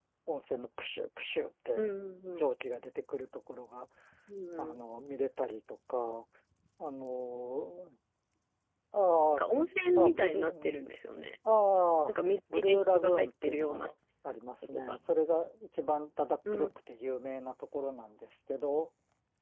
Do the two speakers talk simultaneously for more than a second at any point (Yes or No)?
Yes